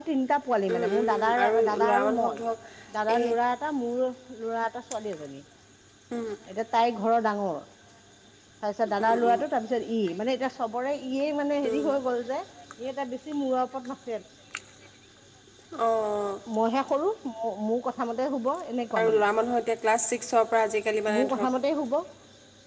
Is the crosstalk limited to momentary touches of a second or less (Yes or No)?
No